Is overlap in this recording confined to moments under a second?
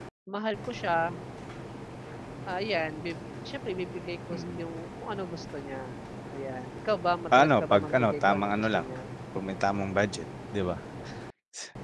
No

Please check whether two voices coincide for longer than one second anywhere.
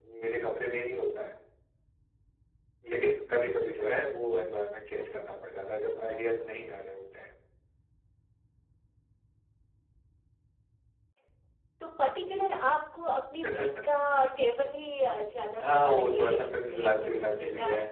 Yes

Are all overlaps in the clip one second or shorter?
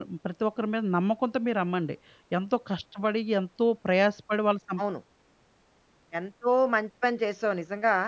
Yes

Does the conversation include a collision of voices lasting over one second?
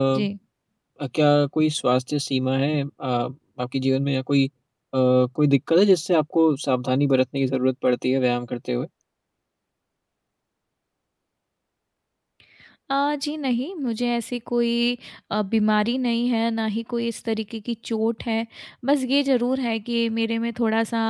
No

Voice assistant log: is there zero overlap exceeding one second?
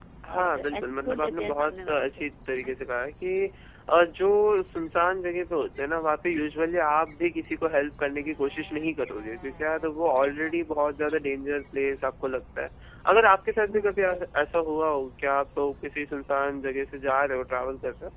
No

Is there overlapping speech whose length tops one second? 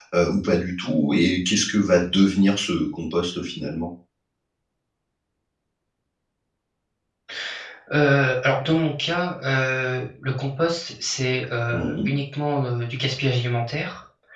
No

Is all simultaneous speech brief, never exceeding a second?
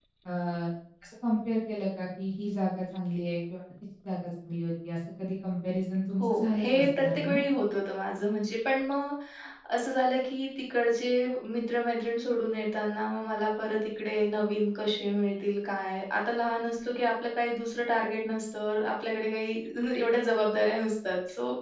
No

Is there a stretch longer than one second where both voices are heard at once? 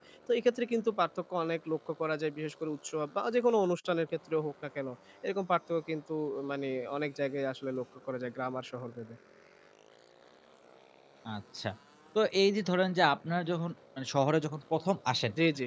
No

